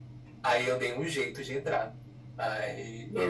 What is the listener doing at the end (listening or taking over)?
listening